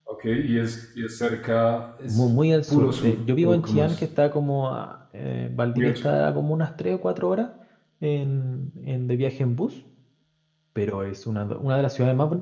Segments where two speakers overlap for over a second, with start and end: 2.7-4.0

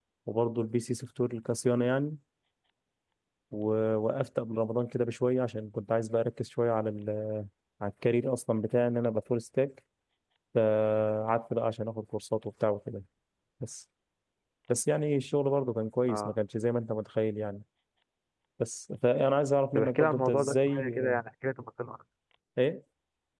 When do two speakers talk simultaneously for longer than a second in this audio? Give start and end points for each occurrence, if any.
19.8-20.9

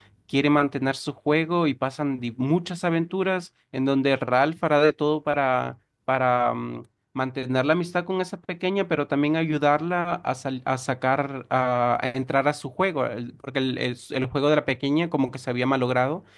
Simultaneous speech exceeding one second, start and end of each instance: none

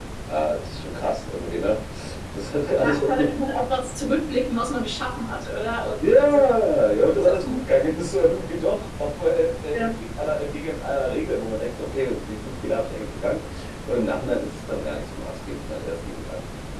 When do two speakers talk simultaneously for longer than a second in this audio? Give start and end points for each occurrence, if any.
none

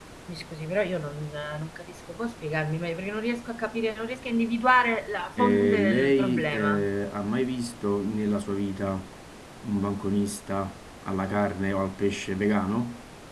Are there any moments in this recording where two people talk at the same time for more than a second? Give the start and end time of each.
5.4-6.8

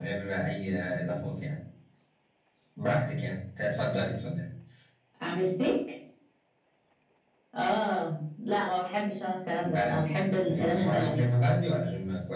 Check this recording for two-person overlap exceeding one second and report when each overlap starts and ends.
9.6-11.1

